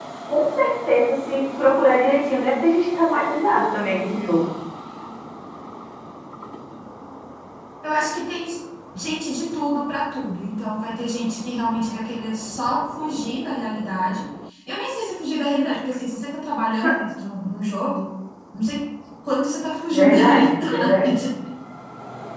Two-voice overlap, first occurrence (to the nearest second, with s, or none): 20 s